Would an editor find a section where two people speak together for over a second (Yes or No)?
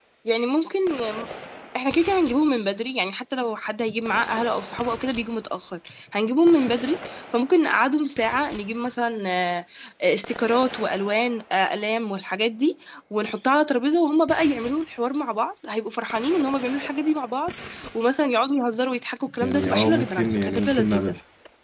Yes